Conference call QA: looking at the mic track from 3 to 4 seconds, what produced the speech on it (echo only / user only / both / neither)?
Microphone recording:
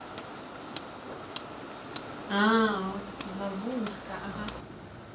user only